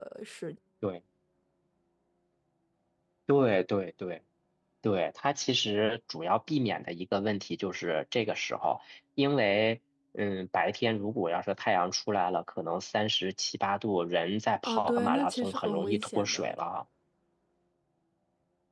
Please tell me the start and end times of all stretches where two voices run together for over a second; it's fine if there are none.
14.7-16.5

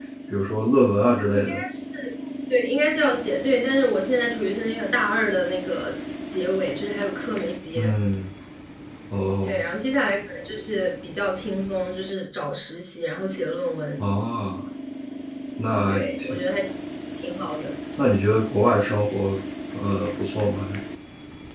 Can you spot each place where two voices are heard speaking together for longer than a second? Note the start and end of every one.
none

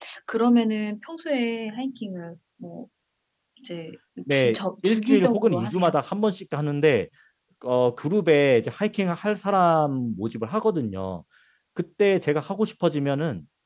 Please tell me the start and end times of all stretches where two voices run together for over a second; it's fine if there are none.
4.3-5.9

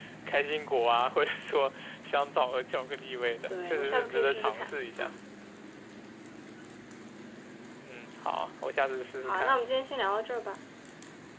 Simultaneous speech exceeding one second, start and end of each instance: 3.5-5.1

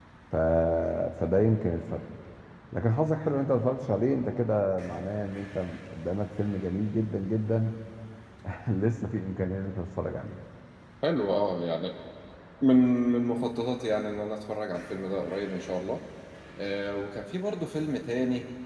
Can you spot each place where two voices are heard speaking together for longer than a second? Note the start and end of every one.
none

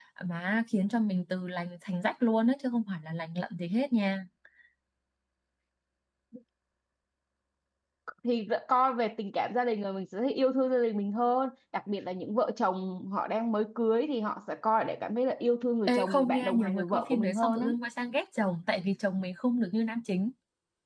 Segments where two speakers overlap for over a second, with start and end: 15.9-17.7

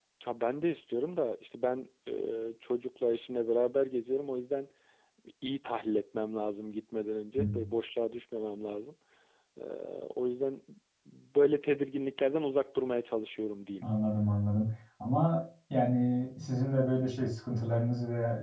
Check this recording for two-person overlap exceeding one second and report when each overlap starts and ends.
none

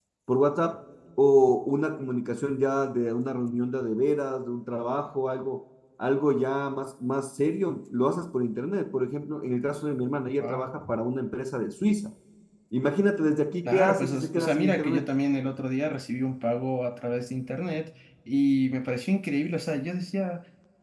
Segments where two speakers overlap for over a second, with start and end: 13.7-15.1

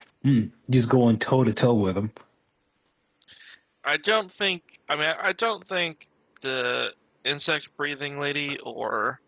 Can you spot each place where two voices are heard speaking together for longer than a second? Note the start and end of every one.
none

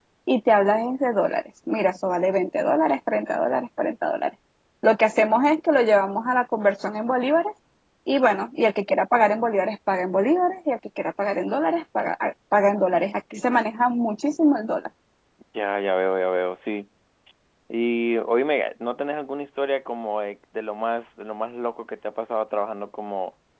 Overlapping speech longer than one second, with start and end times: none

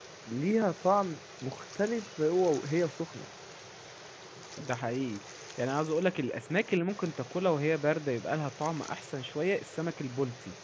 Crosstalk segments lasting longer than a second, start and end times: none

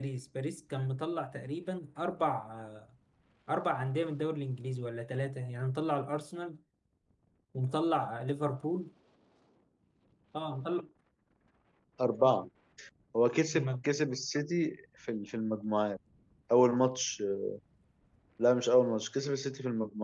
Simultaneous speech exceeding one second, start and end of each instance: none

